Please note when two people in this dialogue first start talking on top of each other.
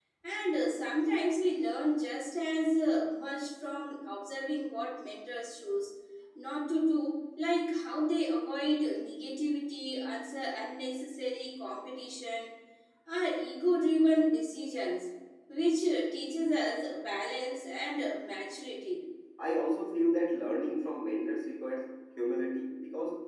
none

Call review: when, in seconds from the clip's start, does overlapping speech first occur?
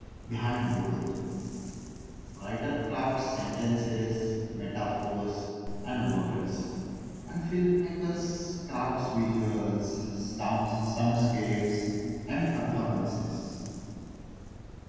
none

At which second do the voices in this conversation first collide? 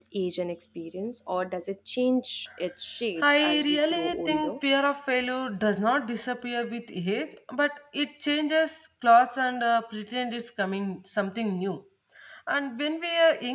3.2 s

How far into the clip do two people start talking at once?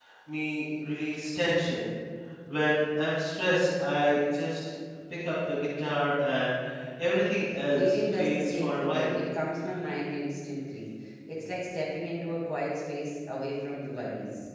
7.7 s

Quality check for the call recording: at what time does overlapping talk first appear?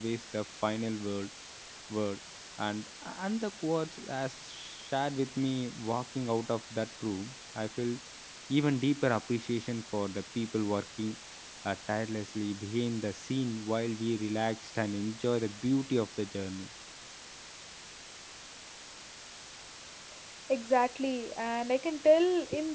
none

